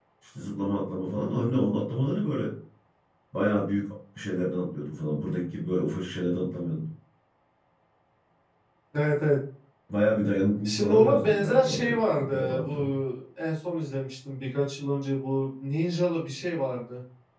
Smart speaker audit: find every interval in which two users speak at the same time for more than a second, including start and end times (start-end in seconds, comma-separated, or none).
10.6-12.9